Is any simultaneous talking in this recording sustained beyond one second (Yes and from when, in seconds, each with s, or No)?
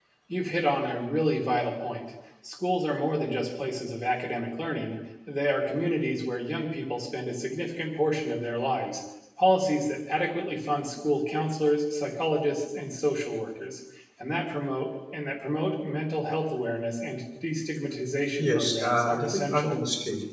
Yes, from 18.4 s